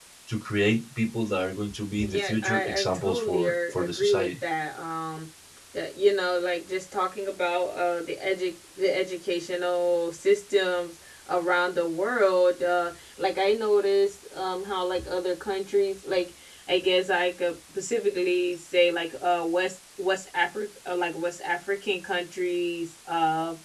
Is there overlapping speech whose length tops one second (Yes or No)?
Yes